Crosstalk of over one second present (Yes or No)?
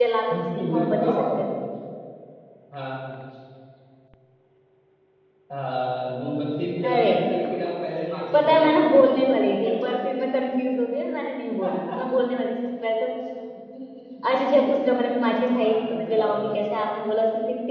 Yes